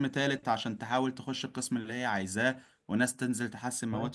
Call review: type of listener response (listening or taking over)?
listening